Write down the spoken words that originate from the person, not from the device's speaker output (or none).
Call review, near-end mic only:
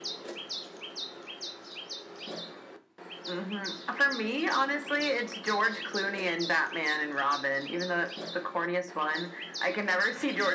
none